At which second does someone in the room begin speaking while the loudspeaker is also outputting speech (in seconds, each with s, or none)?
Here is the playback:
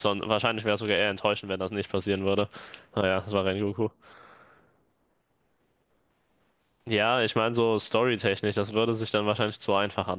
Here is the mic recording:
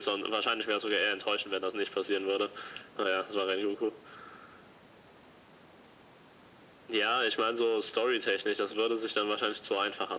none